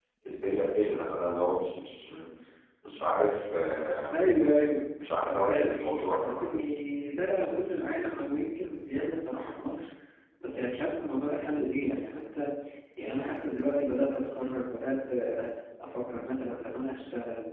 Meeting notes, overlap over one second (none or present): present